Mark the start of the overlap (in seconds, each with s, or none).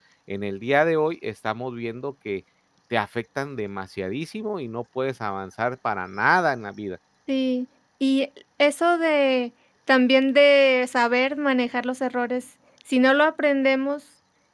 none